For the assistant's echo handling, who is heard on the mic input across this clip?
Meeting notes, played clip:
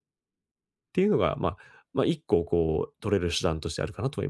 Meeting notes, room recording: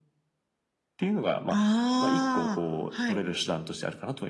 both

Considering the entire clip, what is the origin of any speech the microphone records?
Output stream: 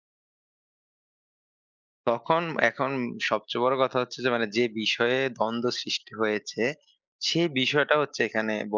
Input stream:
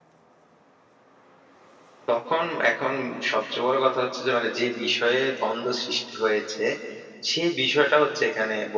echo only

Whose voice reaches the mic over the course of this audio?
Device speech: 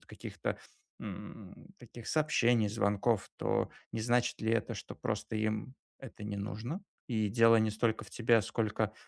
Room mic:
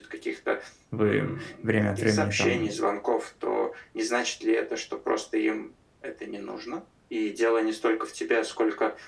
both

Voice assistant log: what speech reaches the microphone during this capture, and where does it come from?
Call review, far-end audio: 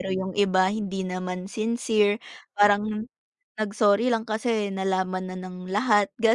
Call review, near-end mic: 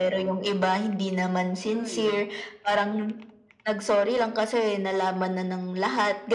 both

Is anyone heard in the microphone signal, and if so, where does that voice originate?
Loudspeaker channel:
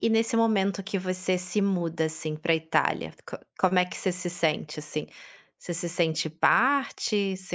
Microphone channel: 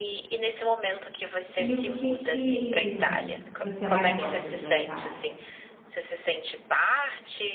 both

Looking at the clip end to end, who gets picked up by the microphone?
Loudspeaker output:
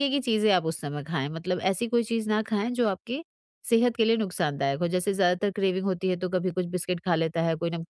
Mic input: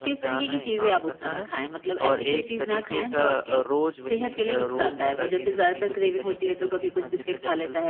both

